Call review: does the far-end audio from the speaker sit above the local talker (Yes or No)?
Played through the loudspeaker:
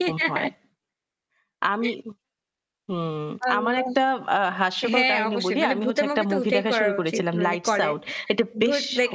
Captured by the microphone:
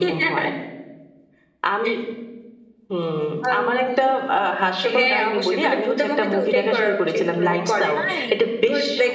Yes